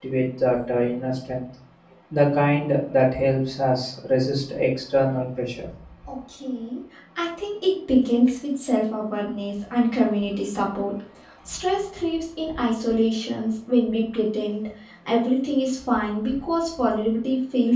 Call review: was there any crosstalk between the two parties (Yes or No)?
No